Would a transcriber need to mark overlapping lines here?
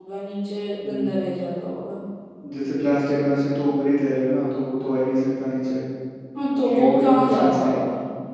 Yes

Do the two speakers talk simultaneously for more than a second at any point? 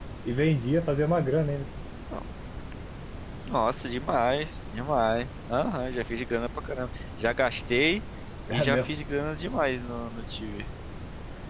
No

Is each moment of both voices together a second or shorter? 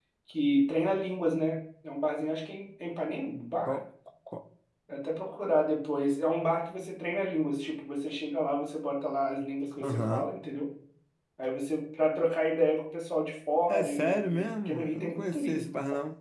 No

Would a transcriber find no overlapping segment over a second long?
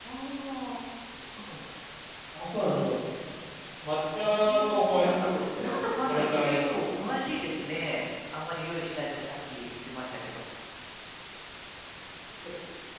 No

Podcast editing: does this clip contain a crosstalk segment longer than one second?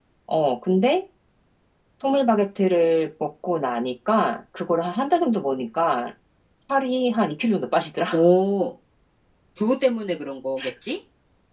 No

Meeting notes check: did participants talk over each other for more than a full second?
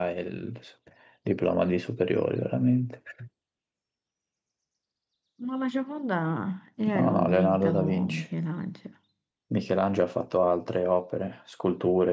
Yes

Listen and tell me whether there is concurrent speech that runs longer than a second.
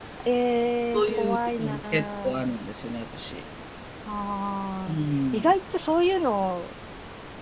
Yes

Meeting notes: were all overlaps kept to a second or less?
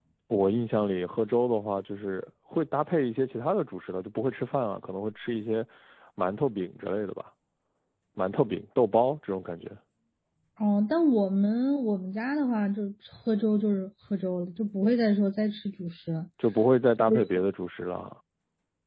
Yes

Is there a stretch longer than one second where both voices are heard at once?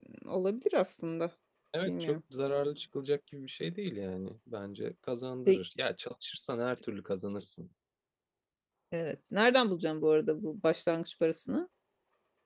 No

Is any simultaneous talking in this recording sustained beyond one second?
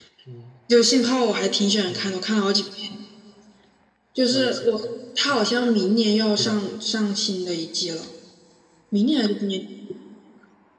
No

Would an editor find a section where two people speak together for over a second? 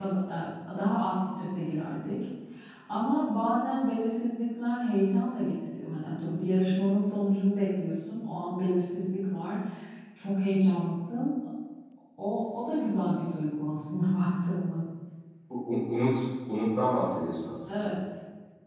No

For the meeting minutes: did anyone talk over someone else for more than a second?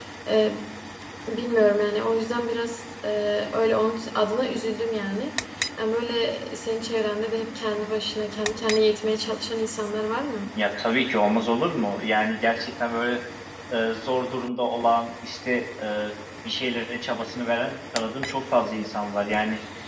No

